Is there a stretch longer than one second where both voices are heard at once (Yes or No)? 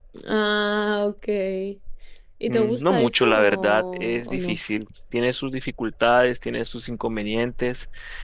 Yes